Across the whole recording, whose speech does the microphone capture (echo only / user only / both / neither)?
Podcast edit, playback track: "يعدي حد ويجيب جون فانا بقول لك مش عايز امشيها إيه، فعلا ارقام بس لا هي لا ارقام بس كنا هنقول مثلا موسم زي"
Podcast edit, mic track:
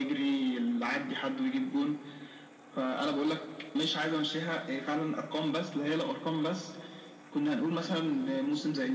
echo only